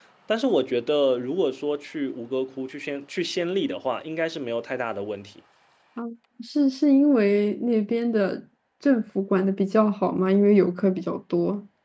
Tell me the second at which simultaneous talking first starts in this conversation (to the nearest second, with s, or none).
none